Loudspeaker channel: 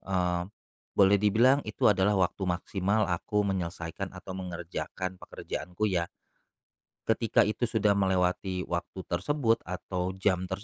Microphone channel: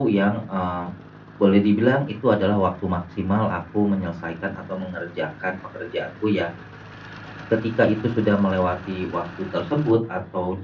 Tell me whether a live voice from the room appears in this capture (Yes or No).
No